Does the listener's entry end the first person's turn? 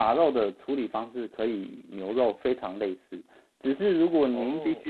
No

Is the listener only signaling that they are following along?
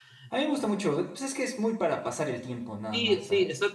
No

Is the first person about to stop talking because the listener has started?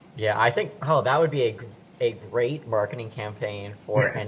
No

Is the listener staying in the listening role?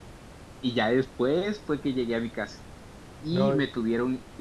Yes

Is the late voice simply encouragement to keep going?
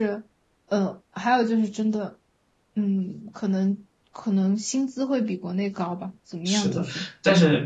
No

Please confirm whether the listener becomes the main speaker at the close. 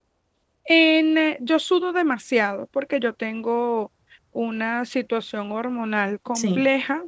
No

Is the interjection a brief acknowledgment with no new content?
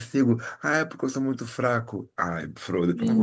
No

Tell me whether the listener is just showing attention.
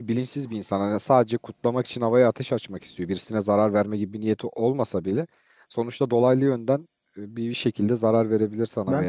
No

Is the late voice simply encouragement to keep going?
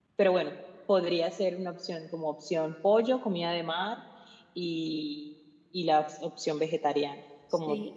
No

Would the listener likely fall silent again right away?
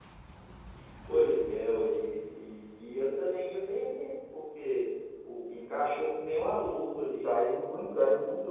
No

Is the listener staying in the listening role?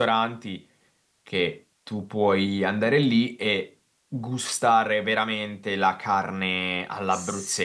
No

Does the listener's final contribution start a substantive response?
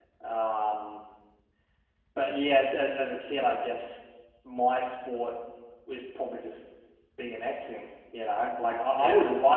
Yes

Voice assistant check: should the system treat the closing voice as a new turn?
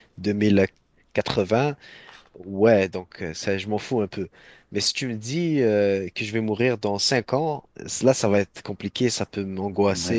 No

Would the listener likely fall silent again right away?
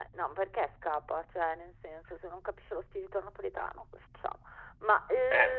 Yes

